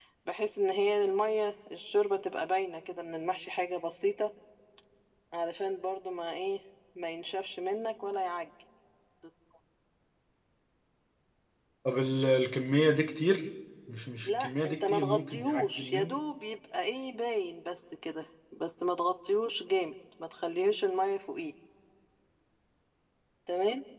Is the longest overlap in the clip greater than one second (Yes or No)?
Yes